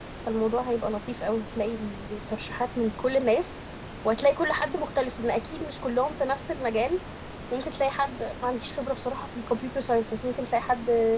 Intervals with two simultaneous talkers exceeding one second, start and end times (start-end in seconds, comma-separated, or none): none